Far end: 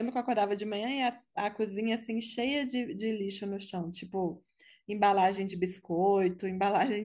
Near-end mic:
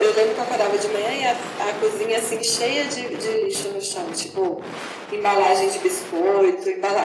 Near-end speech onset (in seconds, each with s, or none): none